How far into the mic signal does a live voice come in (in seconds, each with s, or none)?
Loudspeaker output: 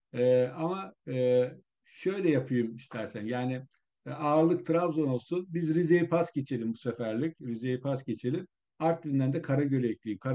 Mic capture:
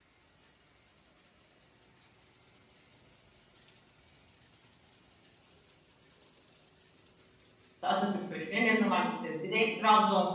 7.7 s